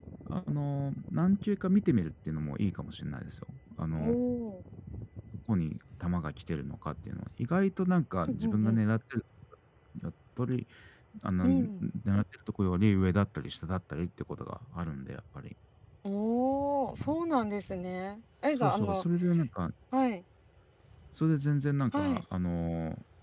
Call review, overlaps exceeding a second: none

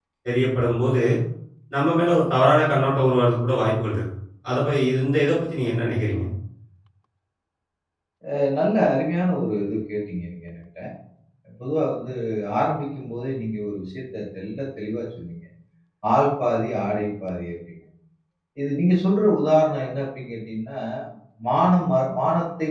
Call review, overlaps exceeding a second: none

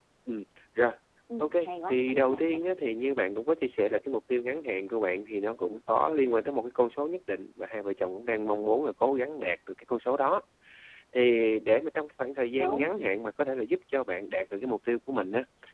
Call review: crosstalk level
present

